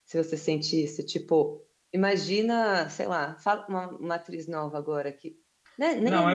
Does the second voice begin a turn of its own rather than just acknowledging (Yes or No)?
Yes